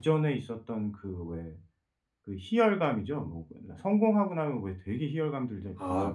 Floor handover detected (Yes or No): Yes